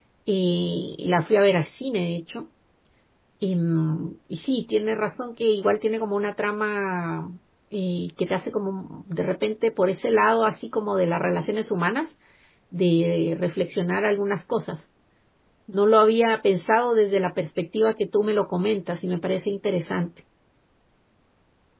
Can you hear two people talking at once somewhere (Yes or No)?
No